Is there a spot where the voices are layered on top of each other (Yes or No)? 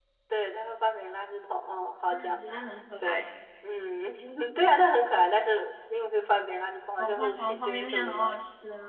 Yes